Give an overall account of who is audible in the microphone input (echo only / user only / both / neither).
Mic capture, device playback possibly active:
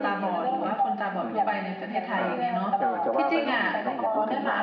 both